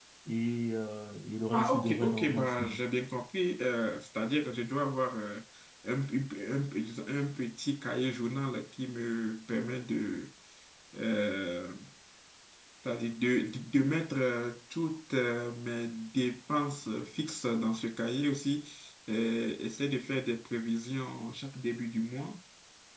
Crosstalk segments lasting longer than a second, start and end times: 1.5-2.8

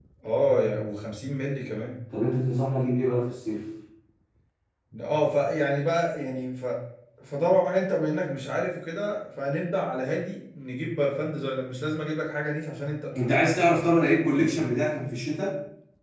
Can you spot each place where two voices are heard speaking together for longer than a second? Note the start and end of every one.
none

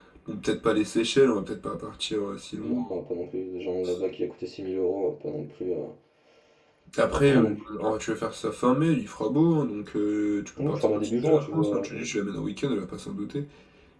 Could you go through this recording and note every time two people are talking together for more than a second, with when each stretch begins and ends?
10.6-11.9

